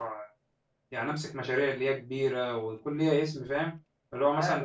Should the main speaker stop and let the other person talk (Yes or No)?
Yes